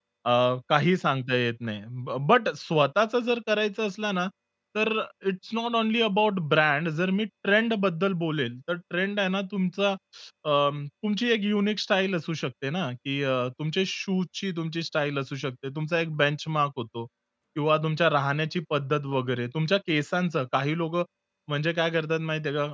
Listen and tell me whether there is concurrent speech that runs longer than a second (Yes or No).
No